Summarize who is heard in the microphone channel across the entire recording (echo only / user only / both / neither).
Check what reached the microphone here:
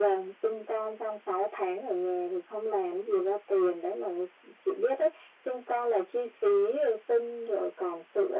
echo only